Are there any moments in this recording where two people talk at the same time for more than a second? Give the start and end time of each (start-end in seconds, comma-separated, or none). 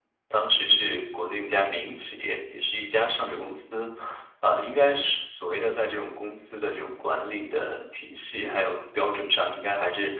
none